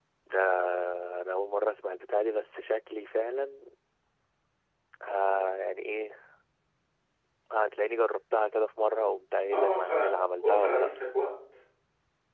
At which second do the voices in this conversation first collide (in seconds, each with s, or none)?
9.5 s